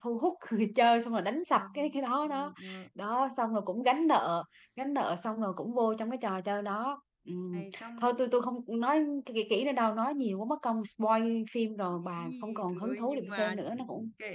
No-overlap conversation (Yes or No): No